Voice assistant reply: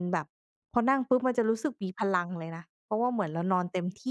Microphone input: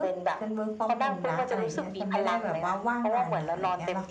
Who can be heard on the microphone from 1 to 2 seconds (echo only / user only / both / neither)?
both